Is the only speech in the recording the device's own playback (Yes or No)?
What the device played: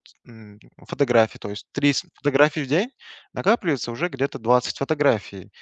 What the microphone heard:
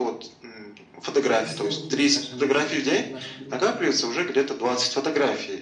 No